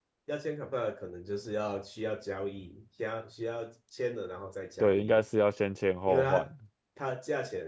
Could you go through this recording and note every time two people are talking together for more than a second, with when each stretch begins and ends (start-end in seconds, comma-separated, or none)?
none